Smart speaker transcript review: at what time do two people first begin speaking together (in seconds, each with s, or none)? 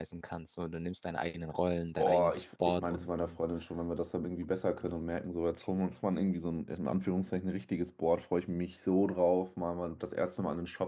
2.0 s